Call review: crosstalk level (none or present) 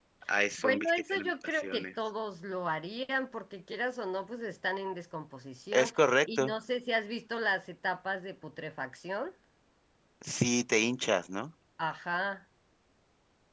present